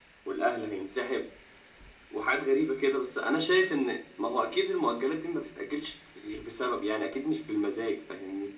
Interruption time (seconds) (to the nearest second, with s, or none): none